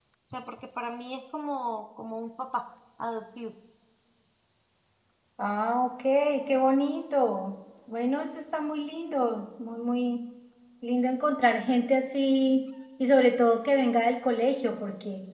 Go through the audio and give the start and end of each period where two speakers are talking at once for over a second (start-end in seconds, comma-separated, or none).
none